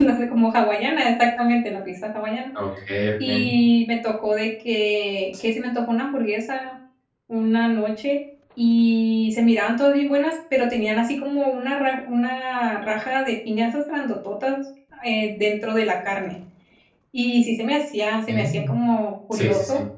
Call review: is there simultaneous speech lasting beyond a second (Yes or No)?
No